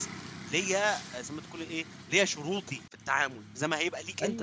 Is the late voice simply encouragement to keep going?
No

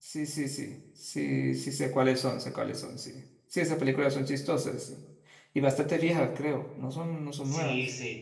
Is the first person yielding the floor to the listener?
Yes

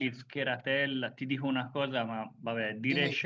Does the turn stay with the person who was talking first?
Yes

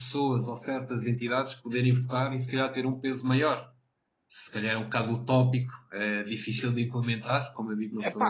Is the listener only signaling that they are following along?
Yes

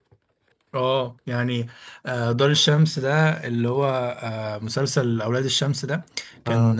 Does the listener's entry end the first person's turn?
No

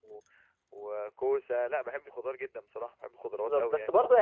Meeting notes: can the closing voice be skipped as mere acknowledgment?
No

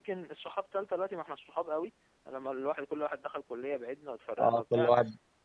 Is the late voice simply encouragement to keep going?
No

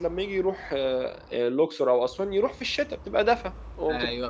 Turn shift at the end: Yes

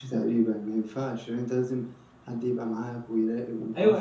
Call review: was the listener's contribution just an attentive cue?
No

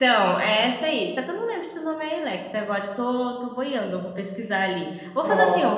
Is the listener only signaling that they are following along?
No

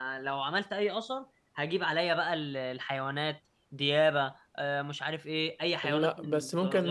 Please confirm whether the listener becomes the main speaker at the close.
Yes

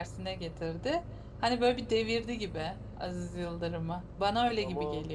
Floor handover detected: Yes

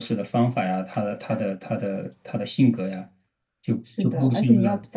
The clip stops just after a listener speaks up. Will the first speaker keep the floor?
No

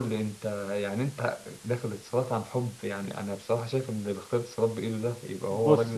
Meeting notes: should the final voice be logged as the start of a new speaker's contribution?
Yes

